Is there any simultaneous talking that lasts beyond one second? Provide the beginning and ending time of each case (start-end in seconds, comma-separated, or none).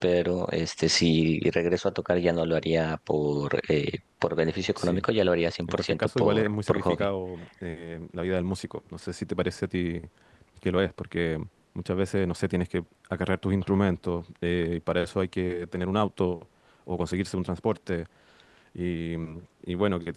5.7-7.1